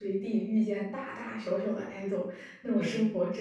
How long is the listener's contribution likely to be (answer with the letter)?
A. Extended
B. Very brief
B